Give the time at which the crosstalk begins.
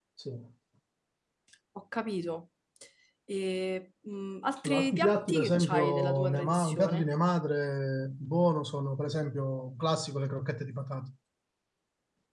4.6 s

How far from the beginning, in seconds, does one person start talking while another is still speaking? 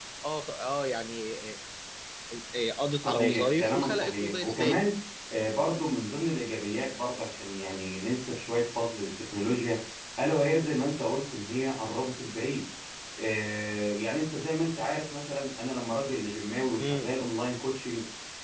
3.0 s

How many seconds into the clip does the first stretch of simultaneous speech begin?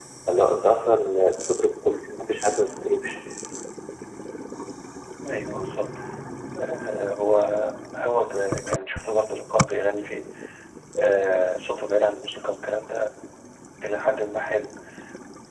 none

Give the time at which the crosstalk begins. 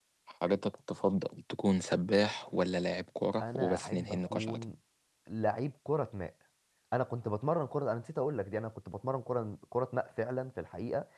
3.4 s

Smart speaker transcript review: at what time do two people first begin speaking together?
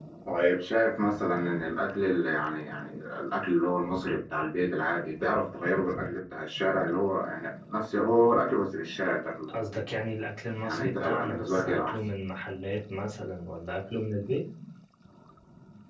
10.6 s

